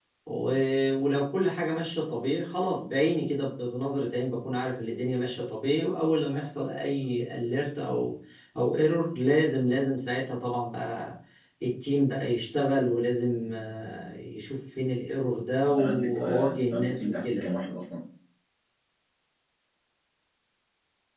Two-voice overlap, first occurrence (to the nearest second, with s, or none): 16 s